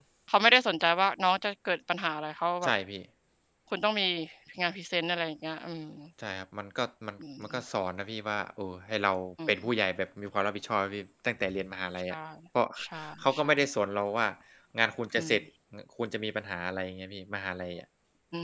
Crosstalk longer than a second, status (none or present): none